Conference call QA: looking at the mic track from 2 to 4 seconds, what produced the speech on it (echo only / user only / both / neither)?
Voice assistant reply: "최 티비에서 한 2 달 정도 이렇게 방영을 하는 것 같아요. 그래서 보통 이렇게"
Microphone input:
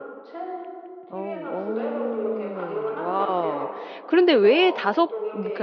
both